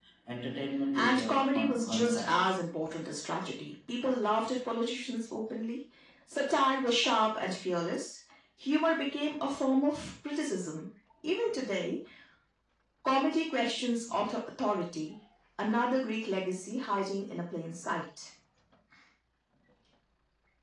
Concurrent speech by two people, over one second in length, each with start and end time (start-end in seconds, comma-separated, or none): 1.0-2.6